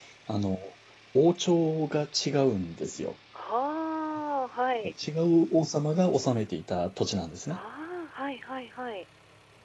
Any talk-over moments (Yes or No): No